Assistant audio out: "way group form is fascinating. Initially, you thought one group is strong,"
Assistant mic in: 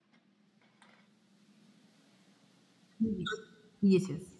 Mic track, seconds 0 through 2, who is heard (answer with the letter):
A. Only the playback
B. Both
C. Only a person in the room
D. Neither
D